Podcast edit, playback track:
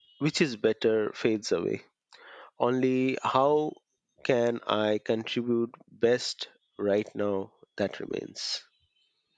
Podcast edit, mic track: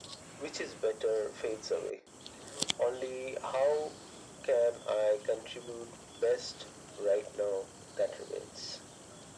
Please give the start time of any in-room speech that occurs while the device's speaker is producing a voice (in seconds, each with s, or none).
none